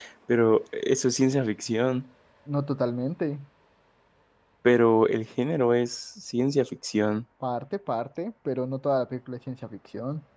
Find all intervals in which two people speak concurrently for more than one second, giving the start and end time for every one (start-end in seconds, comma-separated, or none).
none